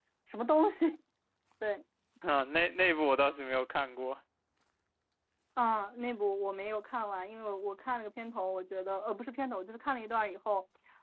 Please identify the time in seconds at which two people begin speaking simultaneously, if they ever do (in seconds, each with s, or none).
none